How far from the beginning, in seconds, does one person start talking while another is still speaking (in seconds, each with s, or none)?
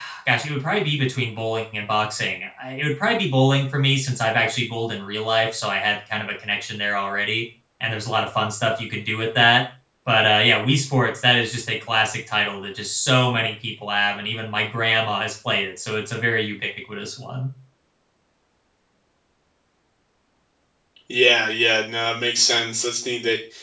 none